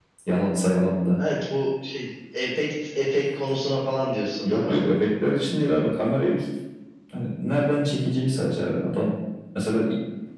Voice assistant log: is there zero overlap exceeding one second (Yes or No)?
Yes